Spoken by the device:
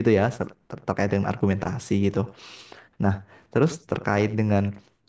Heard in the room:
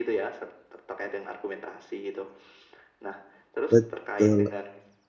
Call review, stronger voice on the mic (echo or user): user